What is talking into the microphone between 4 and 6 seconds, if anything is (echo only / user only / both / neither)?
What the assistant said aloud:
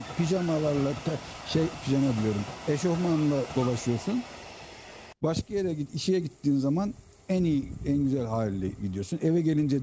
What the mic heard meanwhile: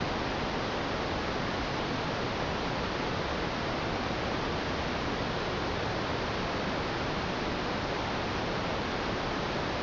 neither